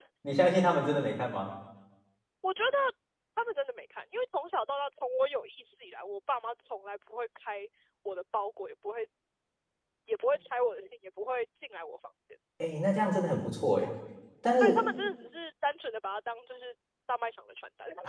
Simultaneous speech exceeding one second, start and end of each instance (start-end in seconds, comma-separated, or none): none